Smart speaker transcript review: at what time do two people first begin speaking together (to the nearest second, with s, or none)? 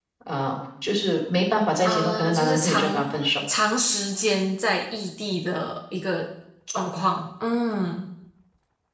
2 s